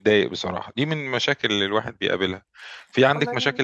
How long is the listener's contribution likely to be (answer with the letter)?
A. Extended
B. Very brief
B